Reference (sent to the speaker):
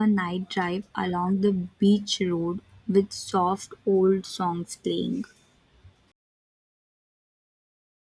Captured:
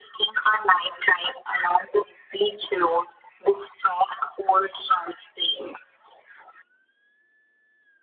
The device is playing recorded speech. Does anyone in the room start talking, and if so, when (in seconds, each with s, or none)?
none